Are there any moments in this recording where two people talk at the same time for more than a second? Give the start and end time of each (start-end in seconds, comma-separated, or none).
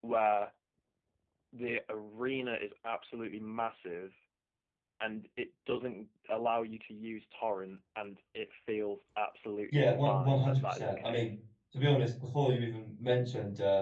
9.7-11.3